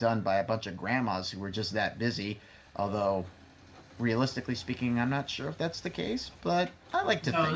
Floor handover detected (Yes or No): Yes